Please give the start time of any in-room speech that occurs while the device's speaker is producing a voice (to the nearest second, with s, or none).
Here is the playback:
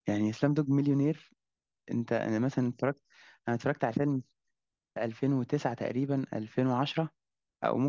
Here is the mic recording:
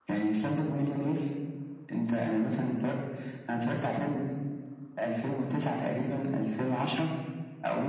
none